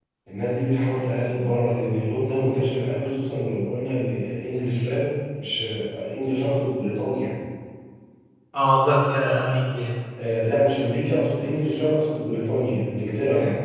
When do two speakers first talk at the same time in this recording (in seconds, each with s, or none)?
none